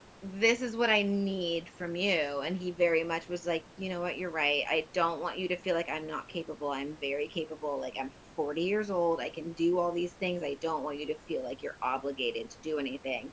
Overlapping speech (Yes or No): No